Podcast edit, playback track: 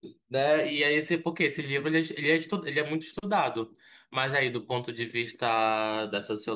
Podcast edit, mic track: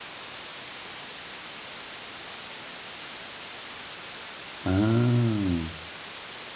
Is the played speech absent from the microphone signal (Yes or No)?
Yes